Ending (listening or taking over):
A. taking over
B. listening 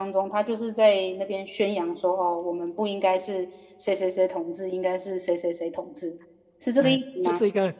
A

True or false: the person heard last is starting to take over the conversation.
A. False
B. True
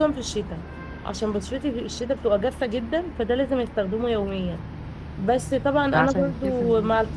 A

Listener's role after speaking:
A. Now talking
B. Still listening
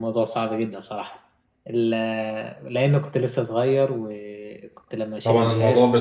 A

